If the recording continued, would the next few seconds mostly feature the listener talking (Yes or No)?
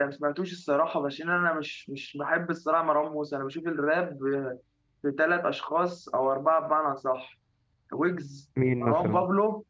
No